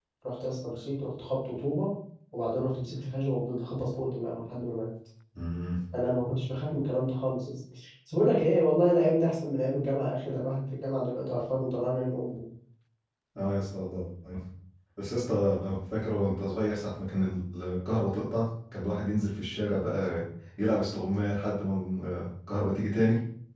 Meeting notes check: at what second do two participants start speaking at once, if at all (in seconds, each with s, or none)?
none